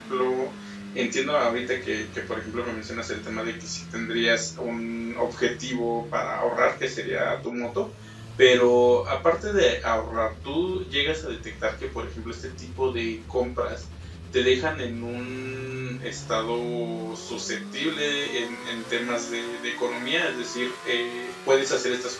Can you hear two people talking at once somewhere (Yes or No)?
No